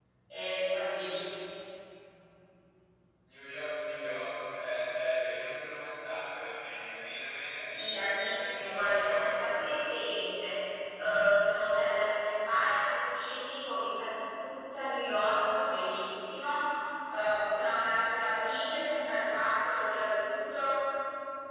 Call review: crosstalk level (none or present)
present